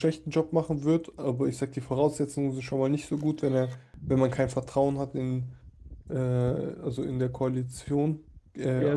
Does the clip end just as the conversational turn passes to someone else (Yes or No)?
Yes